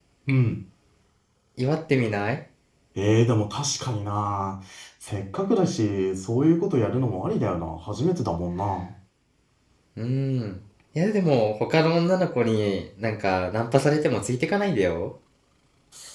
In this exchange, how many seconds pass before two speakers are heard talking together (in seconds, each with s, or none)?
none